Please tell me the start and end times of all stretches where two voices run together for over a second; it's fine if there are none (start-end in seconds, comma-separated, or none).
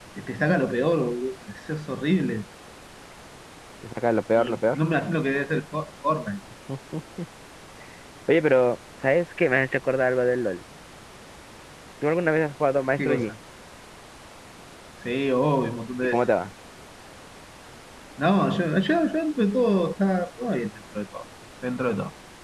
none